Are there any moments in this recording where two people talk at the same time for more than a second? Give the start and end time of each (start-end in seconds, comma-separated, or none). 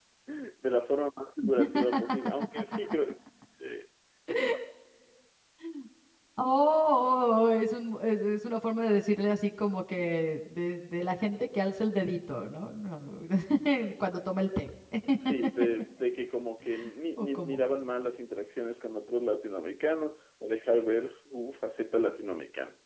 none